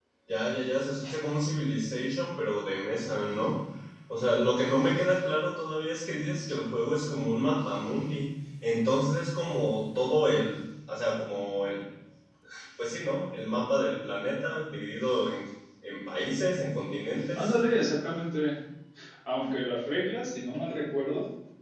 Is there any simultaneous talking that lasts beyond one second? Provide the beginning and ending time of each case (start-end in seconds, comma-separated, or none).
none